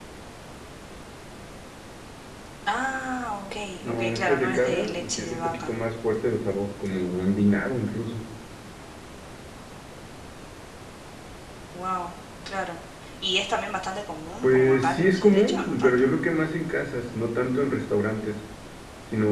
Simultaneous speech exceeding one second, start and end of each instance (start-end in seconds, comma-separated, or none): 3.8-5.7, 14.4-16.1